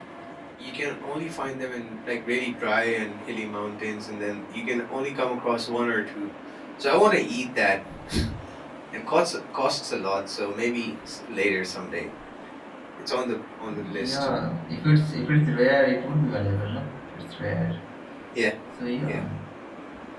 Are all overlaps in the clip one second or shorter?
Yes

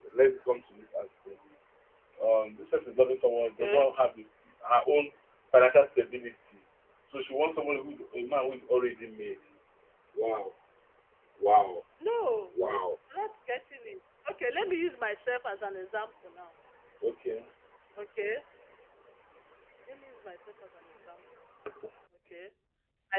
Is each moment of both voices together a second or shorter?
Yes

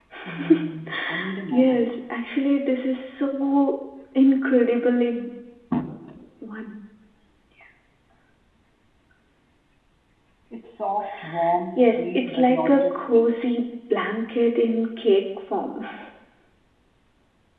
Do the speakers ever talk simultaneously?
Yes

